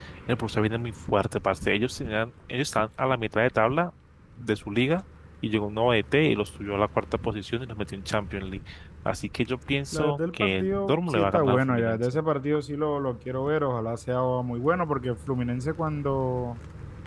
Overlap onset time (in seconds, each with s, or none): 9.9 s